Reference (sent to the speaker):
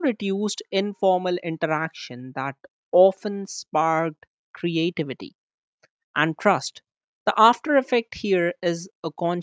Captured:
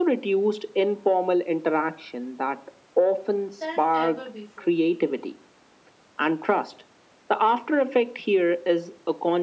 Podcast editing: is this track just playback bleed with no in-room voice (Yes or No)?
No